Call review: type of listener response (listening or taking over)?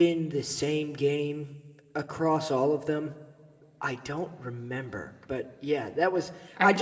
listening